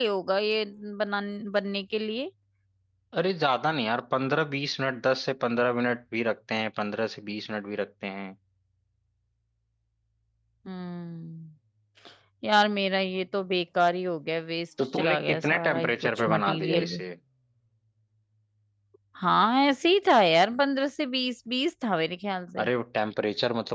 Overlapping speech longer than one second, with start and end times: 14.9-17.0

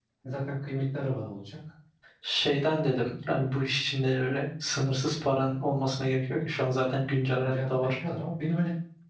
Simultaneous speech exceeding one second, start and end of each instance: none

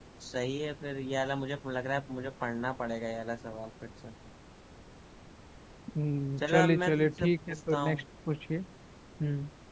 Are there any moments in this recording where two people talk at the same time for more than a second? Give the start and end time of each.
6.5-8.0

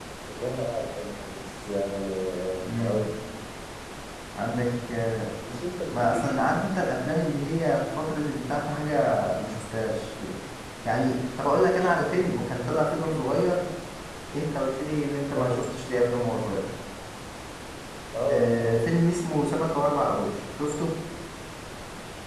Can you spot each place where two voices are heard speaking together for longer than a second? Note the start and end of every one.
none

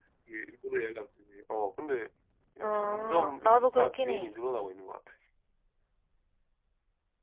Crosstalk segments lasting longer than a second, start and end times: 2.6-4.3

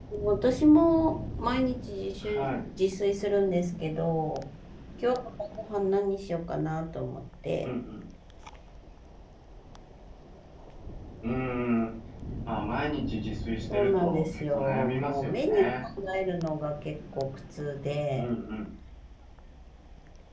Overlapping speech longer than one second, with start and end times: 13.7-15.7

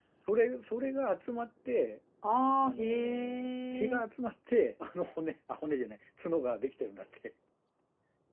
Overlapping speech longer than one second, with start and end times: 2.6-4.0

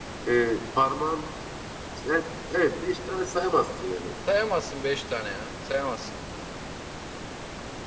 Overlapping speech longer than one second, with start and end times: none

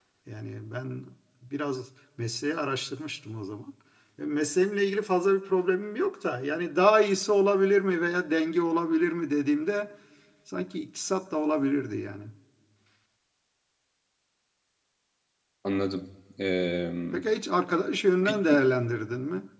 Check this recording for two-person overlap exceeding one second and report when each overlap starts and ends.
none

